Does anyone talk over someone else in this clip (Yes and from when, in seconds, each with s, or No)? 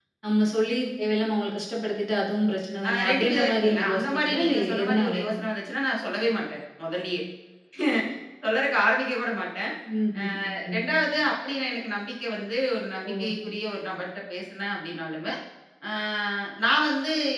Yes, from 2.8 s